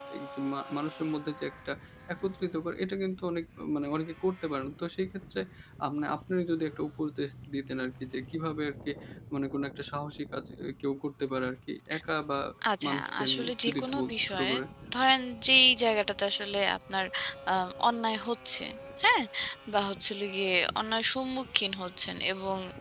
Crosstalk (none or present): present